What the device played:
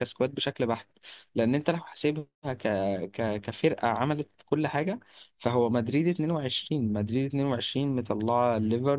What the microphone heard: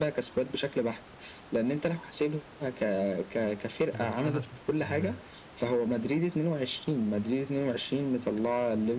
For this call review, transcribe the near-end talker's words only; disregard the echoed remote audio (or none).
بس انا شايف ان